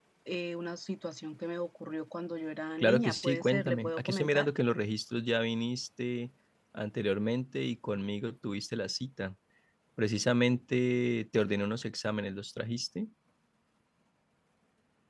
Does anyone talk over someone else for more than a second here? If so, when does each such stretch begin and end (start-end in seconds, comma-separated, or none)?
2.8-4.5